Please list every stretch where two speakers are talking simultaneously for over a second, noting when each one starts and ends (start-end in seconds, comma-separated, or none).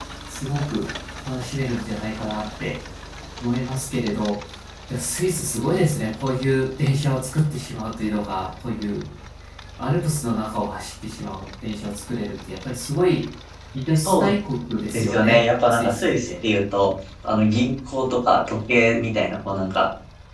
14.9-16.3